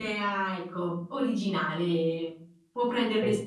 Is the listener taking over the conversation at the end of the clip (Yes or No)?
Yes